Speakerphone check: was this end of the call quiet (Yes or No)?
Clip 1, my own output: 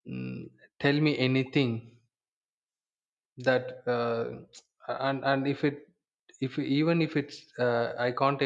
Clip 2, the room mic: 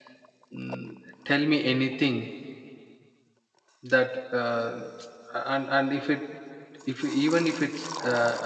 Yes